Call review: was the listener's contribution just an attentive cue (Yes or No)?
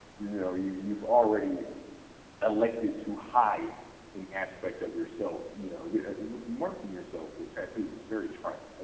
Yes